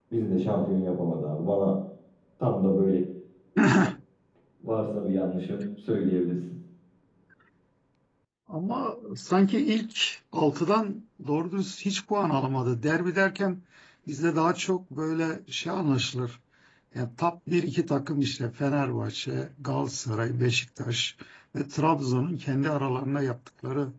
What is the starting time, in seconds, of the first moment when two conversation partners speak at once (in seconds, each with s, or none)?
none